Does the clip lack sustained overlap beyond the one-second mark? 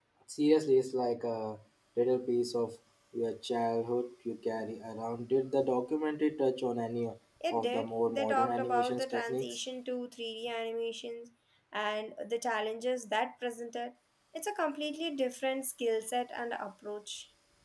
No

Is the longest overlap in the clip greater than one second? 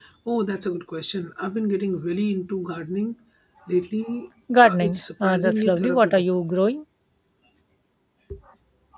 Yes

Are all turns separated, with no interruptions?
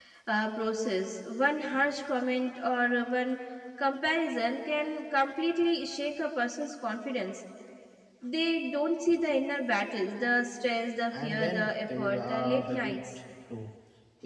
No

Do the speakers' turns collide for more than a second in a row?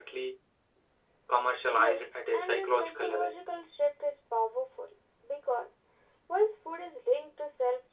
Yes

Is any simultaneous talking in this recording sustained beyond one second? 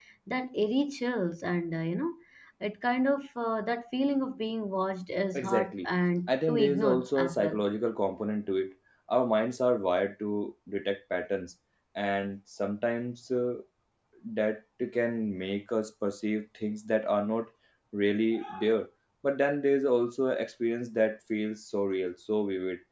Yes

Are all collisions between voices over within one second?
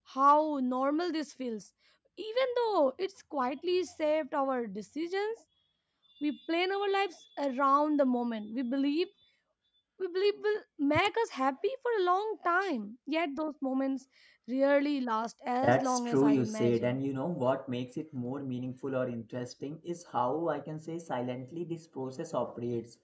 No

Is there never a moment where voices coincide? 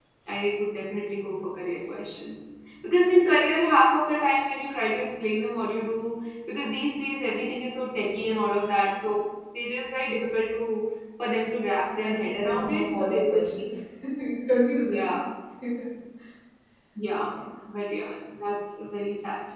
No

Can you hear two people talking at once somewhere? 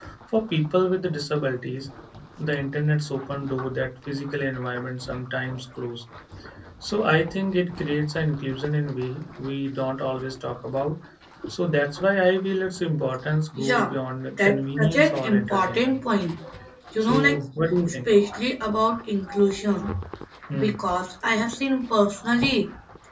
Yes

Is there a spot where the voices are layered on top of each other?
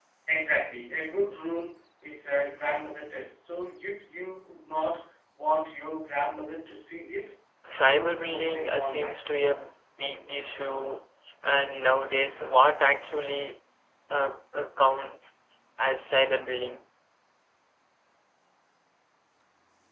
Yes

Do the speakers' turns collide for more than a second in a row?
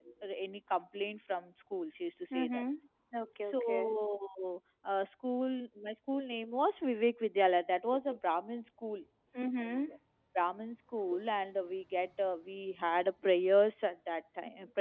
No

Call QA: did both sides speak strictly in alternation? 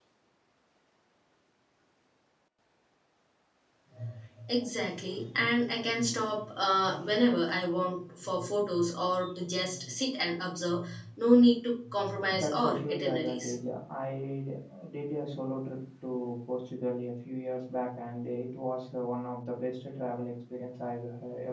No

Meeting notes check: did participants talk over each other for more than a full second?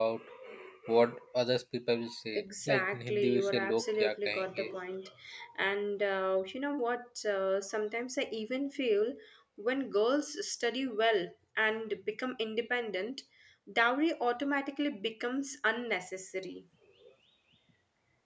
Yes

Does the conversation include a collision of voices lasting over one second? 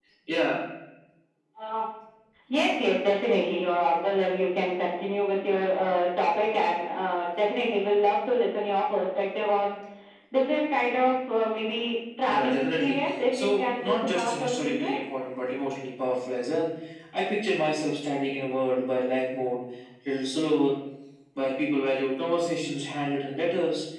Yes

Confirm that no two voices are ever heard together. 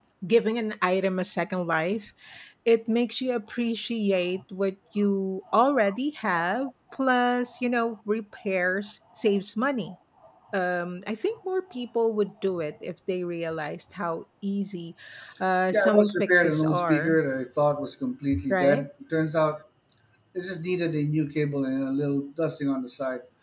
No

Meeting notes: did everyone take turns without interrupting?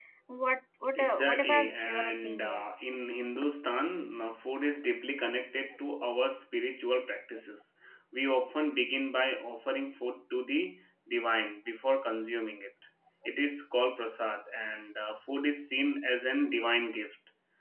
No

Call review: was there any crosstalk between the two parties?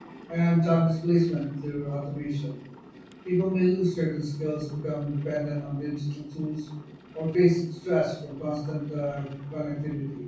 No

